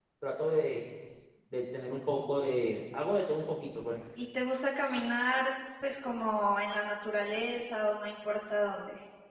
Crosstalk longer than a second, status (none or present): none